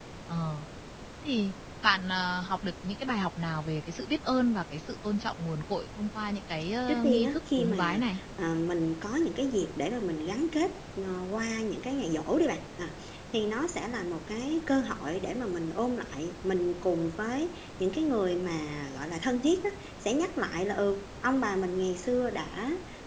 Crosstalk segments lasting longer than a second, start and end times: 6.9-8.2

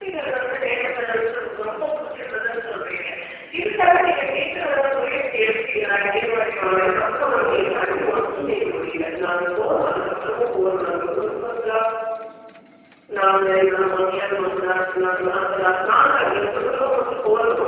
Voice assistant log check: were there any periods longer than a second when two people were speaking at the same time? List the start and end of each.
6.5-7.9

